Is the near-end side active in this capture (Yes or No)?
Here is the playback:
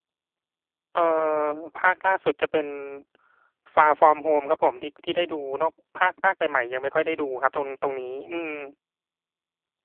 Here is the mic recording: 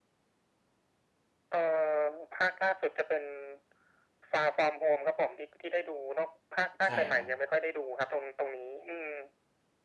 Yes